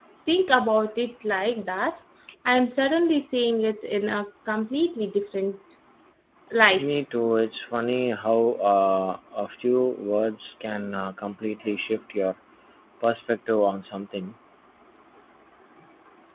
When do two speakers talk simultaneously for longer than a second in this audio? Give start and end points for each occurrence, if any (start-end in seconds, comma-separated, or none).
none